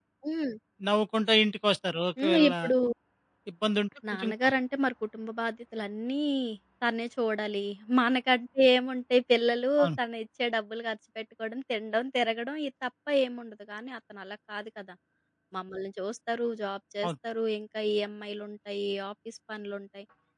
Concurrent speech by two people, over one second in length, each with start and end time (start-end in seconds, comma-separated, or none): none